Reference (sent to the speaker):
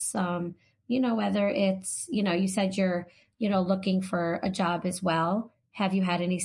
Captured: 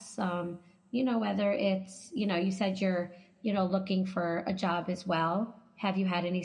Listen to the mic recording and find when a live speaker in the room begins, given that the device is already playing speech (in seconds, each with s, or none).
none